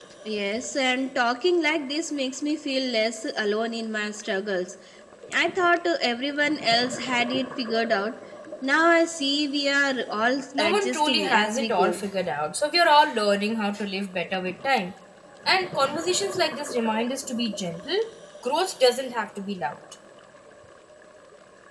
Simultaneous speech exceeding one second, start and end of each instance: 10.6-12.0

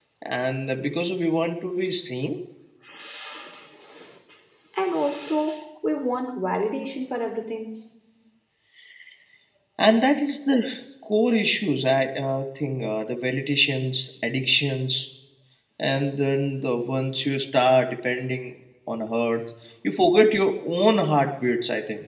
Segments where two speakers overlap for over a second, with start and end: none

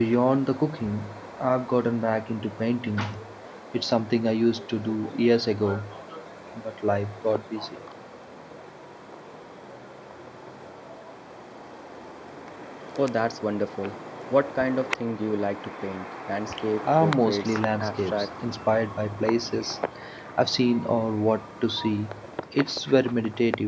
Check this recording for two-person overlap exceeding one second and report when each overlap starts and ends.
16.9-18.3

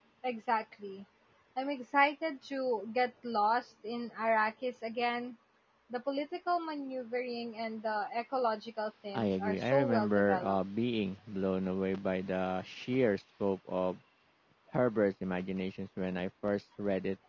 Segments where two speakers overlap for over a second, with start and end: 9.1-10.6

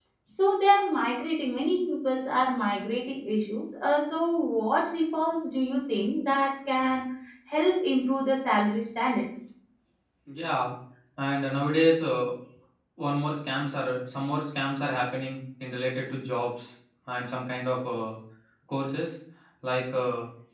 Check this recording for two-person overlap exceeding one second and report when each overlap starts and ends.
none

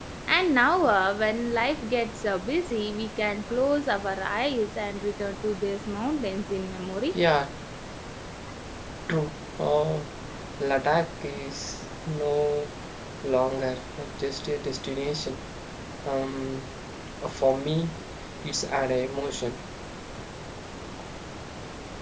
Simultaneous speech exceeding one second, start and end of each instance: none

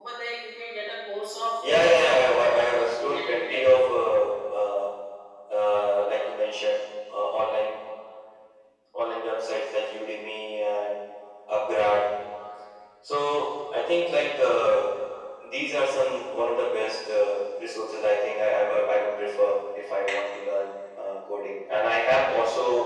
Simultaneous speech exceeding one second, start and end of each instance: 1.6-3.7

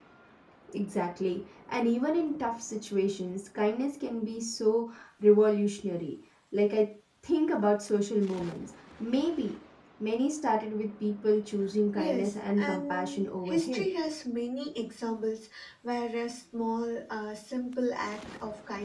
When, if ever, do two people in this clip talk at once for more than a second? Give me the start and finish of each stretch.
12.0-13.9

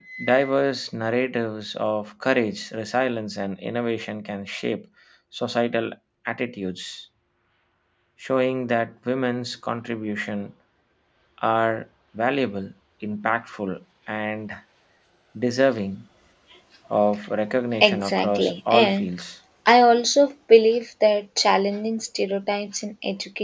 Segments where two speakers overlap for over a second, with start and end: 17.8-19.1

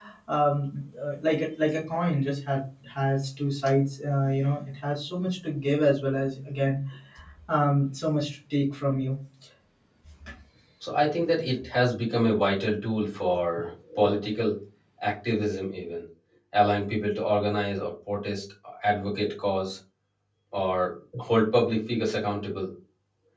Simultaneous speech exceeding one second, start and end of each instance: none

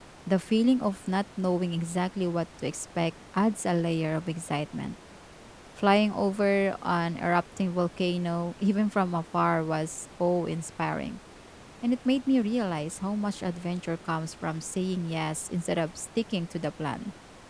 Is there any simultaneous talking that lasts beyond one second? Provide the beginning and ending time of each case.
none

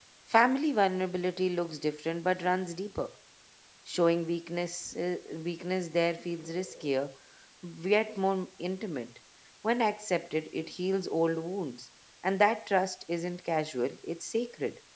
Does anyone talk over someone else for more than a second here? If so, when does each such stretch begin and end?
none

